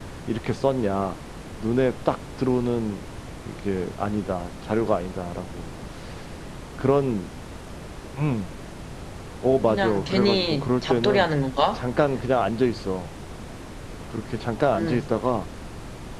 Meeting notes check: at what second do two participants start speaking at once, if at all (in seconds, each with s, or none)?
9.7 s